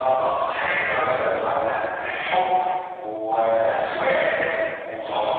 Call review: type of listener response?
taking over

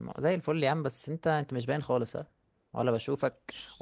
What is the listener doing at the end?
listening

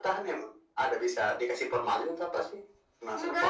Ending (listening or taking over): taking over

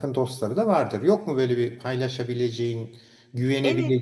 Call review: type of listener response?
taking over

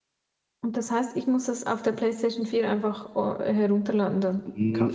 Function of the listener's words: taking over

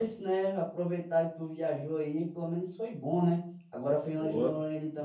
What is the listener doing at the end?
listening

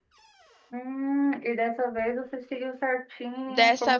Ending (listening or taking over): taking over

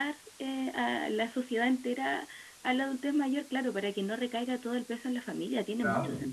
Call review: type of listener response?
taking over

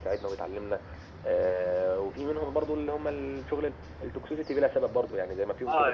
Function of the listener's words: taking over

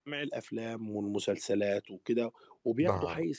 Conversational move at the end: listening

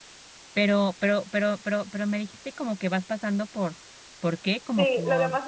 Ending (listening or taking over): taking over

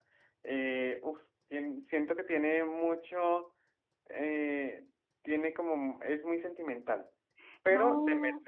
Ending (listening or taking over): listening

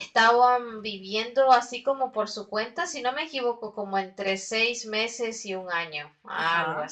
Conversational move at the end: taking over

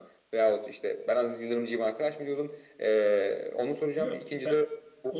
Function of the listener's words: taking over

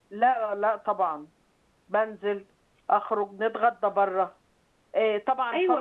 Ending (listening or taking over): taking over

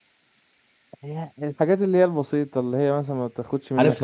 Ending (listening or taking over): taking over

